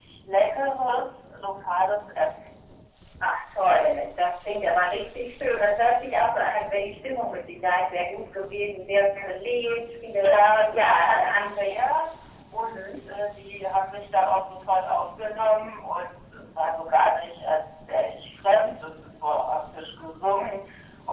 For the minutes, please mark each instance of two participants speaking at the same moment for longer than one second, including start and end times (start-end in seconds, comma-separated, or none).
10.2-11.7